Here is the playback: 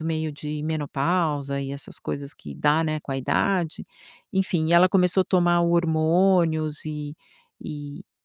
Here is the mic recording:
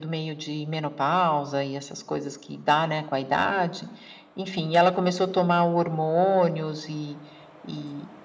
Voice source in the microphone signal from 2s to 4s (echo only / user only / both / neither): echo only